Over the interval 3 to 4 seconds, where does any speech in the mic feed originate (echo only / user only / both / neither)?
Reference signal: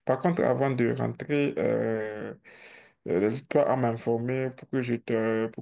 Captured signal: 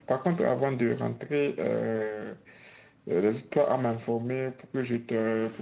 echo only